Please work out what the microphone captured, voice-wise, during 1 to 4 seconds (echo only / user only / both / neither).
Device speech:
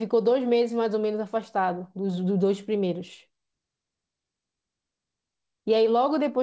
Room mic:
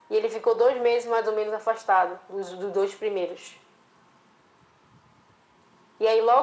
echo only